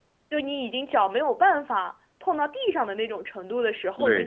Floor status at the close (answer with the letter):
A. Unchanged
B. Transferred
B